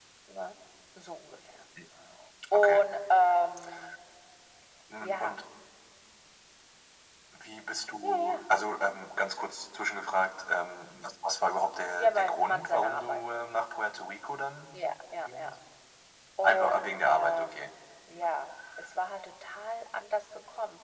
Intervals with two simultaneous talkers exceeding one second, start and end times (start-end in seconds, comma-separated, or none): 12.0-13.2, 16.4-17.7